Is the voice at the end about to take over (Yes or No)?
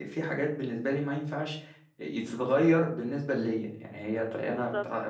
No